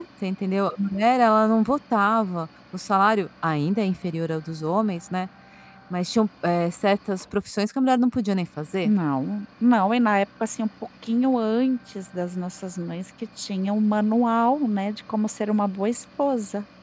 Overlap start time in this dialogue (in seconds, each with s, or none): none